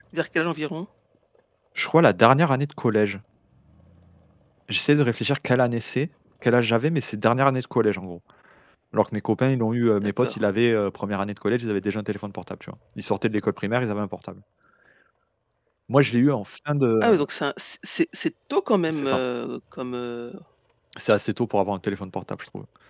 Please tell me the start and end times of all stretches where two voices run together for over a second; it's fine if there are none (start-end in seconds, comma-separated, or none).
none